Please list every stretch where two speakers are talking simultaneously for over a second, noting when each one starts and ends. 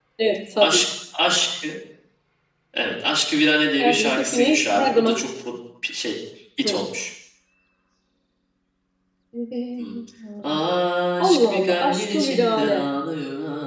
3.8-5.2, 11.2-12.8

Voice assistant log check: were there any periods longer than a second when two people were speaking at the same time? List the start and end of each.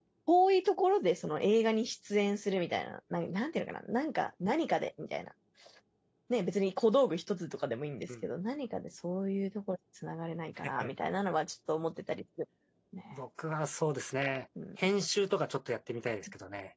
none

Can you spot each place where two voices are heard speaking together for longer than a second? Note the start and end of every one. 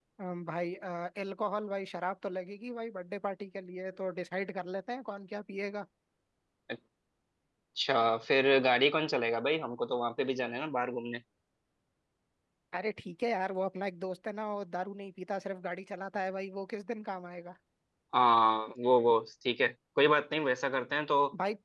none

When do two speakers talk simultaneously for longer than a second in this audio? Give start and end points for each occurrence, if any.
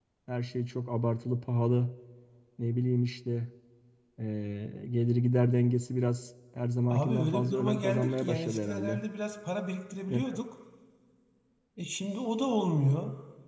6.9-9.0

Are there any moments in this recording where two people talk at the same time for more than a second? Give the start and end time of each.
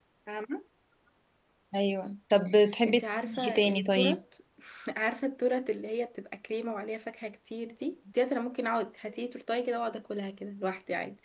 2.9-4.2

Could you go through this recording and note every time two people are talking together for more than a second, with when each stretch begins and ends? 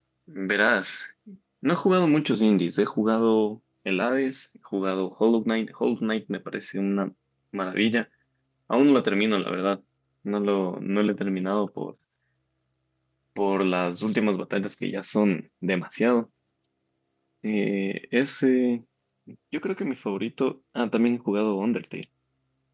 none

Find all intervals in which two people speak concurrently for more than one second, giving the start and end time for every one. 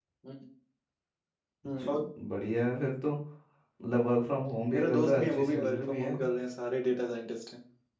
4.7-6.2

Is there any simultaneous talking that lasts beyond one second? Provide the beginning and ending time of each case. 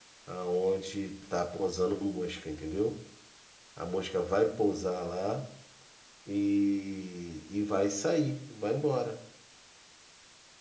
none

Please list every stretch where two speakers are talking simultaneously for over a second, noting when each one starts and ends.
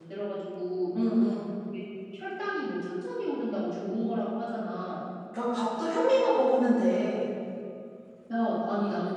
none

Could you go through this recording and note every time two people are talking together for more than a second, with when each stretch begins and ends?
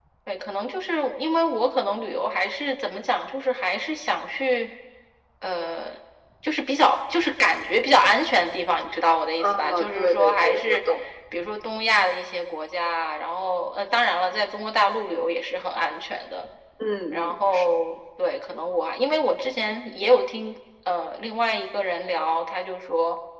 9.4-10.8

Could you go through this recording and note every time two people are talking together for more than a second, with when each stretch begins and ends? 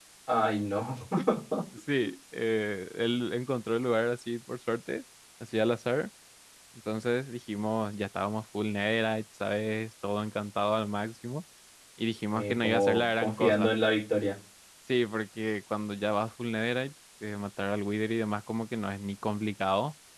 12.3-13.7

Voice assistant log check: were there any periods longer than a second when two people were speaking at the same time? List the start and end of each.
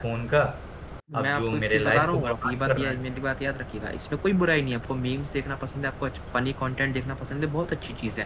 1.2-3.0

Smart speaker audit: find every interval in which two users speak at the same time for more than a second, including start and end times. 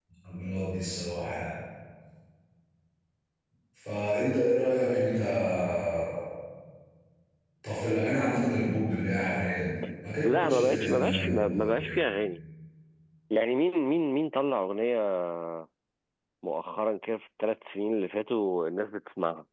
10.2-12.0

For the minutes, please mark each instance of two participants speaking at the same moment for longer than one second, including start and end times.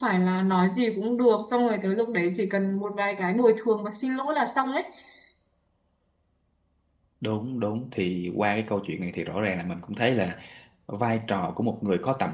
none

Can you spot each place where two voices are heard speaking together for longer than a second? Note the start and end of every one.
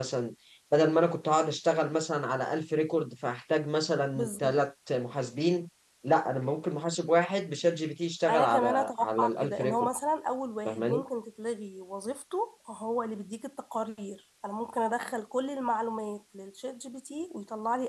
8.3-9.9

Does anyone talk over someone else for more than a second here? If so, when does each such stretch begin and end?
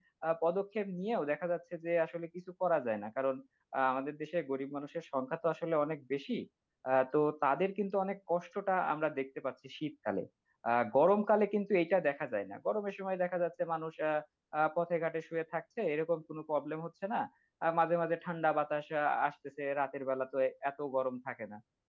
none

